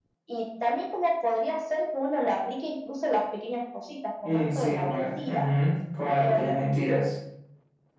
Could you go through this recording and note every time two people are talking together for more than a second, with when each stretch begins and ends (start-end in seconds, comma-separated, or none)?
4.2-5.5